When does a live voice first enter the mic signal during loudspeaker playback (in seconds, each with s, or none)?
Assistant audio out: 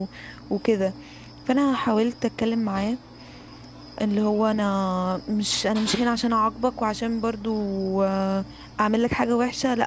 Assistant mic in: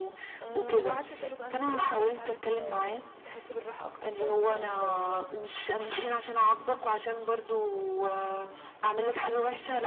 0.4 s